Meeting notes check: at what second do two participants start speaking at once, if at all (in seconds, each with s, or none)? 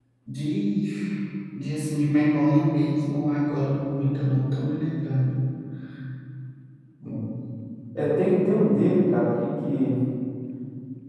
none